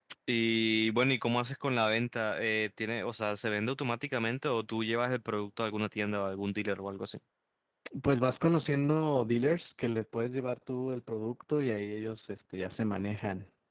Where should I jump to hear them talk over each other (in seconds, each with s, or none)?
none